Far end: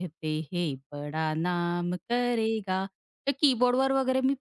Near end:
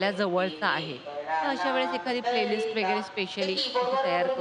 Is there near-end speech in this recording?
Yes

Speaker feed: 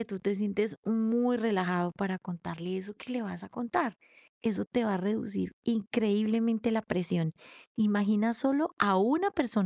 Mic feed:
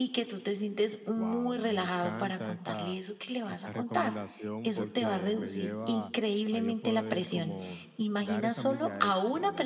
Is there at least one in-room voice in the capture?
Yes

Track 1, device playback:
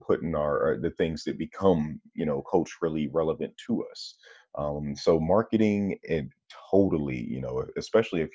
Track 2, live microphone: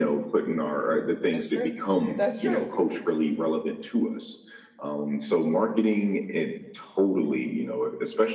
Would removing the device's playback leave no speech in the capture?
No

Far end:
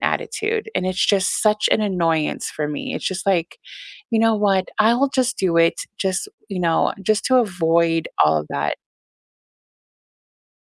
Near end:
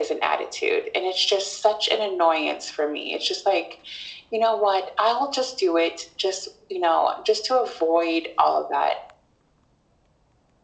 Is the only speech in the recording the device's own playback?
Yes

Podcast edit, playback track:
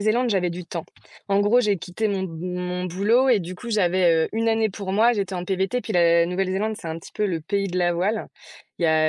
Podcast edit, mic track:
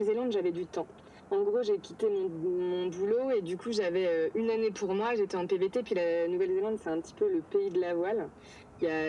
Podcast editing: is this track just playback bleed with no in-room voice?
Yes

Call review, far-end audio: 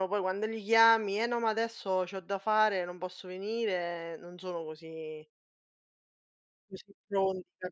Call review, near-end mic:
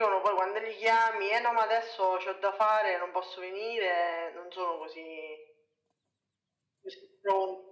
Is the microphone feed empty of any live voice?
Yes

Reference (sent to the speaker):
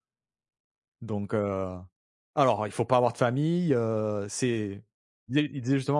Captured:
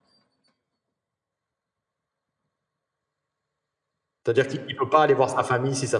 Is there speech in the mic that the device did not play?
Yes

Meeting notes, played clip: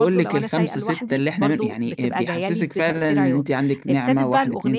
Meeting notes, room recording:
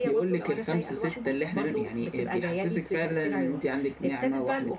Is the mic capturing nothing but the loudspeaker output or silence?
Yes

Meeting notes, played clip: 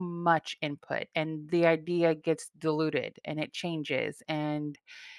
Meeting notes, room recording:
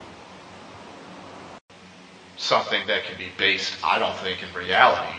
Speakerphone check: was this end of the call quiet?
No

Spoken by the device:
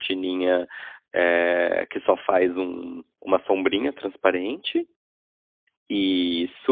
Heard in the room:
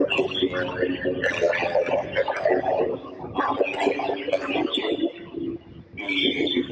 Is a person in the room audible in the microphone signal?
No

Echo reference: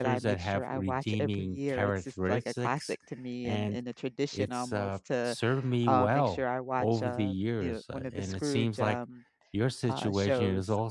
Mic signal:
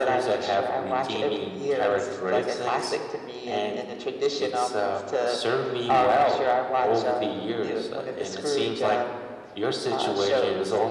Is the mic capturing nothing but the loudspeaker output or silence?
Yes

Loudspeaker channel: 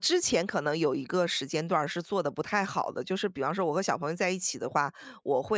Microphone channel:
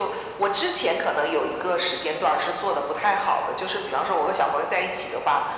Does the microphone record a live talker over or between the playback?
No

